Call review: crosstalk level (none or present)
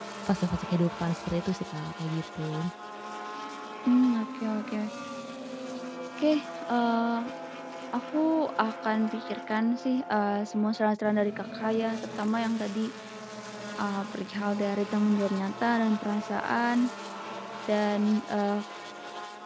none